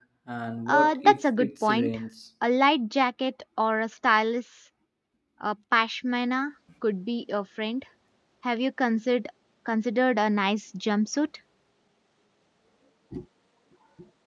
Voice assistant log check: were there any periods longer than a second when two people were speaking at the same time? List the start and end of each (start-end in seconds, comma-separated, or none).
0.7-2.0